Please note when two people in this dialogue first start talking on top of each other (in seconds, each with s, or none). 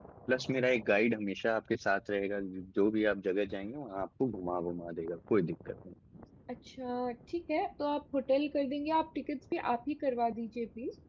none